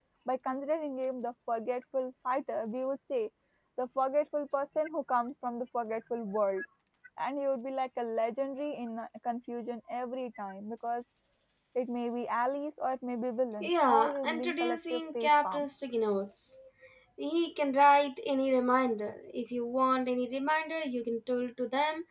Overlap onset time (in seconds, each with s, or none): 13.6 s